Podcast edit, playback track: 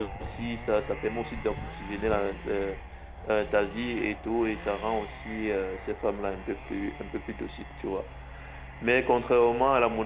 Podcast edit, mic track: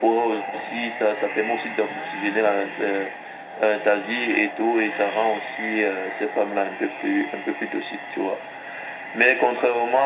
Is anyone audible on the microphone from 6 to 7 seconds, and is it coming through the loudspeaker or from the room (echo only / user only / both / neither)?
echo only